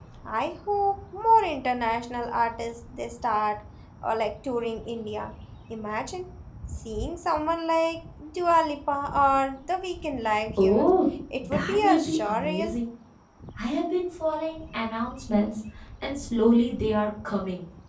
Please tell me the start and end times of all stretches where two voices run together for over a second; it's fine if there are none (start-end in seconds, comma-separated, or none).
11.4-12.7